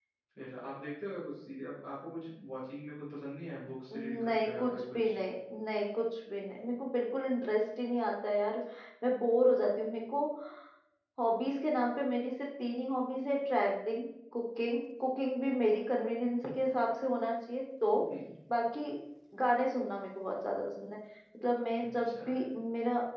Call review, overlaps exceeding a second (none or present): present